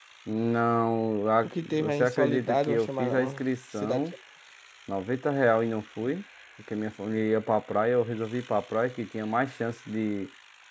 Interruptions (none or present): present